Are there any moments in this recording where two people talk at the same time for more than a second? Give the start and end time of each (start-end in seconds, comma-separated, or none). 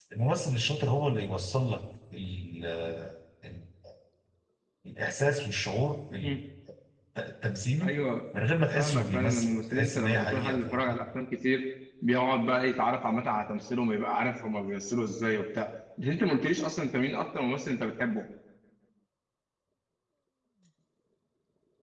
8.8-10.9